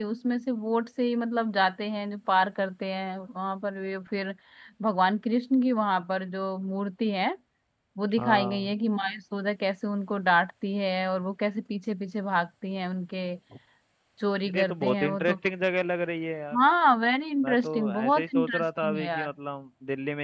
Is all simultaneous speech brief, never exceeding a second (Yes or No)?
No